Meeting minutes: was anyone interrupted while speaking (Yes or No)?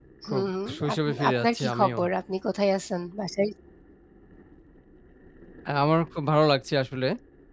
Yes